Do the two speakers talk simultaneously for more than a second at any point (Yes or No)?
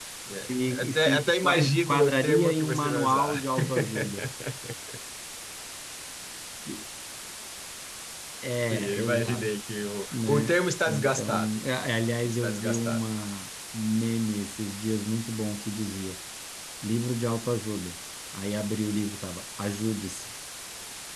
Yes